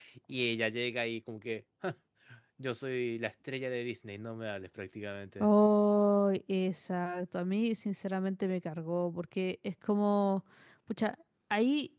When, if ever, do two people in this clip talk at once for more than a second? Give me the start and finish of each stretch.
none

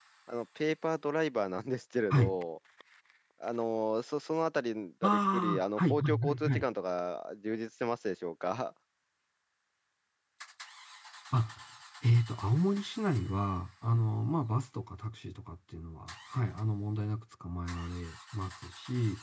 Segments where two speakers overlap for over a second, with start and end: 5.0-6.6

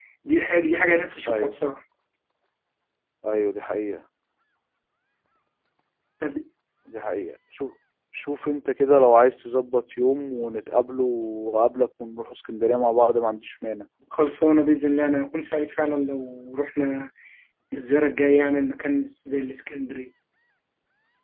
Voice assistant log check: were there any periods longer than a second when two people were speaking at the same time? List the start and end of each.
none

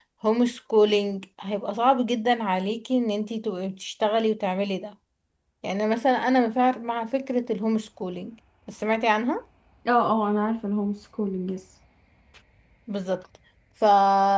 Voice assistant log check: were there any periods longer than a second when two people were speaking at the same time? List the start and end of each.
none

